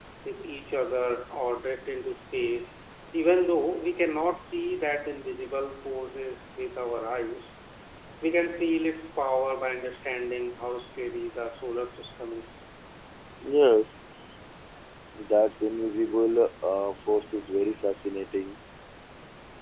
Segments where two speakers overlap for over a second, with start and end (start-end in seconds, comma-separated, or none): none